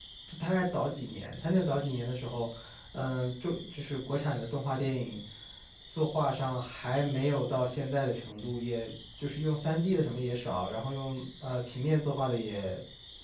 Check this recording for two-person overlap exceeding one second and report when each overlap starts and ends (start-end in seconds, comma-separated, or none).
none